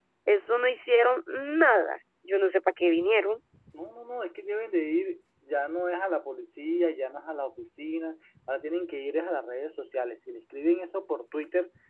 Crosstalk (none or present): none